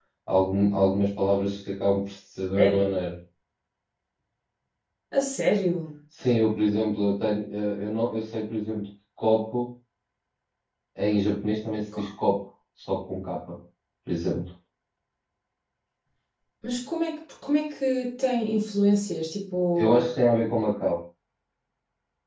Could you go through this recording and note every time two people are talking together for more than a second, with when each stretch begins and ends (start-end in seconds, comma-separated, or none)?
none